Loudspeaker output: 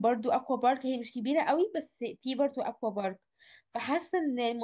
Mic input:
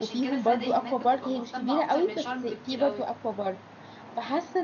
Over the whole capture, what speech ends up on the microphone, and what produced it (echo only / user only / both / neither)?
both